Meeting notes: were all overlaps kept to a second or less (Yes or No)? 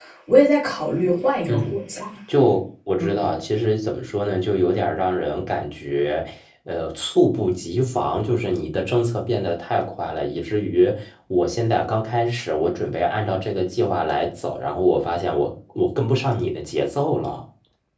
Yes